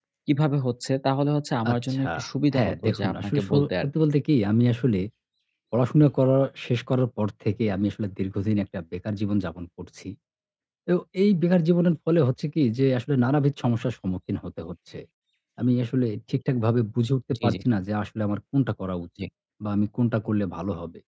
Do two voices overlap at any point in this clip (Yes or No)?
Yes